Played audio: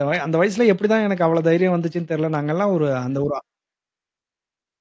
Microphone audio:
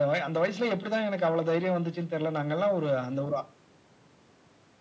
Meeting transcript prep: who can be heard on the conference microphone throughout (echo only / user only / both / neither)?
echo only